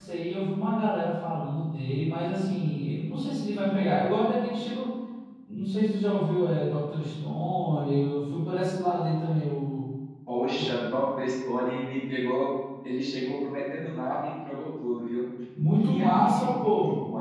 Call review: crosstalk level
present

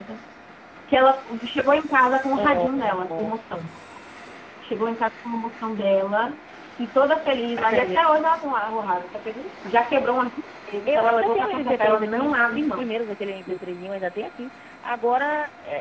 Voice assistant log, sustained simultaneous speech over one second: present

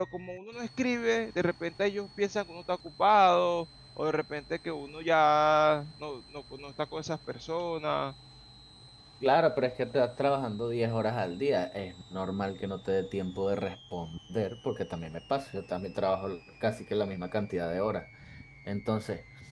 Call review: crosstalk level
none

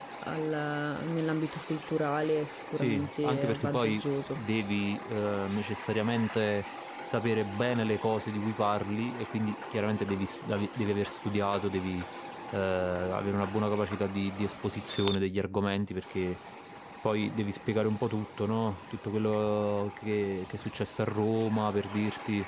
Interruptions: present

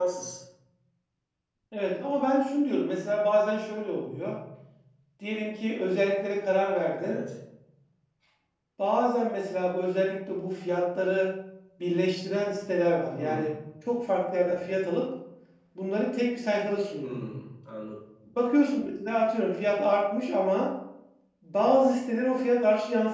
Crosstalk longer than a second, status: none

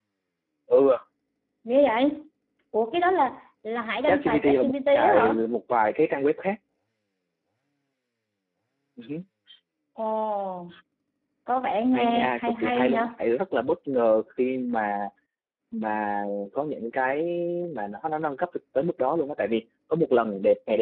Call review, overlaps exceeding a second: present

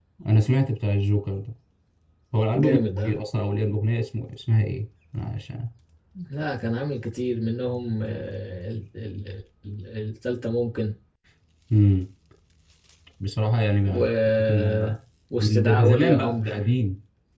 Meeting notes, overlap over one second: present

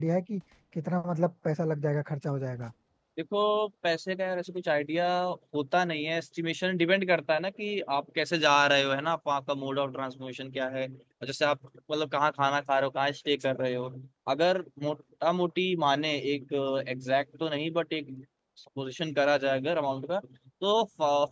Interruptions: none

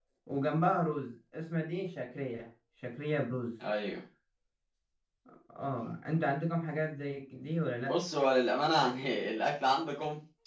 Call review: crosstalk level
none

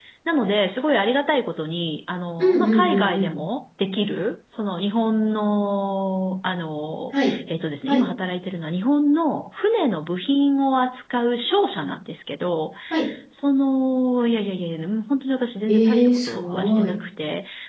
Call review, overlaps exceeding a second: present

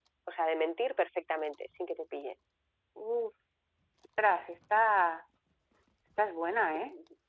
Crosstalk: none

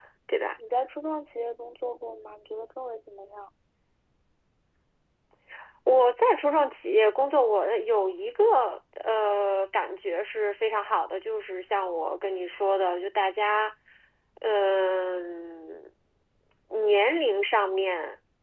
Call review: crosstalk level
none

